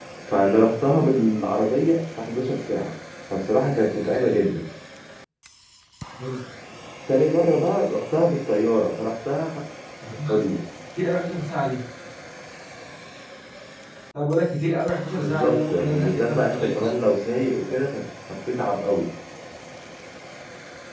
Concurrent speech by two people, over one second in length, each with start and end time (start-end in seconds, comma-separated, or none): 15.2-16.9